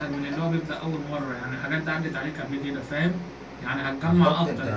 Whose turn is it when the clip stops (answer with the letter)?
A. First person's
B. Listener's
A